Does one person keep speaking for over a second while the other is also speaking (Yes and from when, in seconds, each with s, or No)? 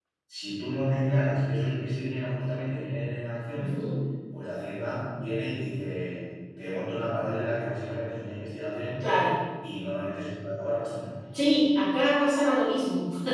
No